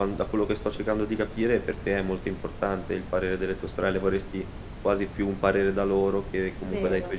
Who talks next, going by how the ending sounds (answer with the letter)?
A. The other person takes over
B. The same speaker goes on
B